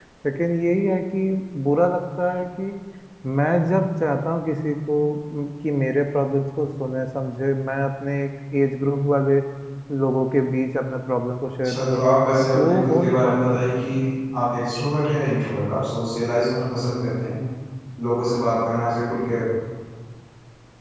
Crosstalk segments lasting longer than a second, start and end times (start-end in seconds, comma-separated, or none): 12.6-13.8